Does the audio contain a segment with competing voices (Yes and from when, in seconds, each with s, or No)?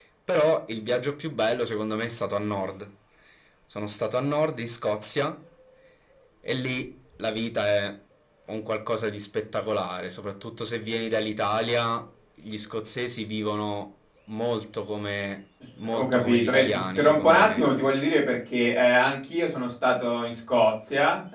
Yes, from 15.8 s